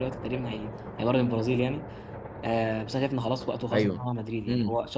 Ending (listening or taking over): listening